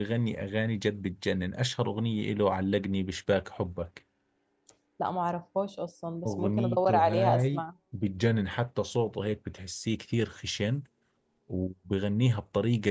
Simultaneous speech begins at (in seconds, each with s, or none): 6.2 s